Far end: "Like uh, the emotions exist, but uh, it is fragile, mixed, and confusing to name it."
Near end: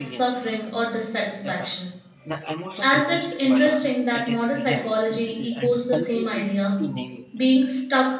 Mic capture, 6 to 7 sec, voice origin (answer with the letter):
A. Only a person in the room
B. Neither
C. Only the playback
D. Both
D